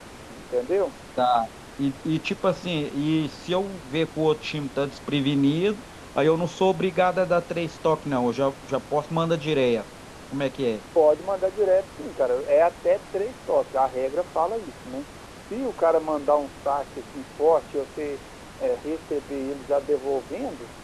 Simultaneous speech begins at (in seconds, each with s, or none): none